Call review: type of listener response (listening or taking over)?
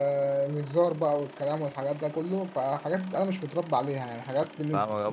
taking over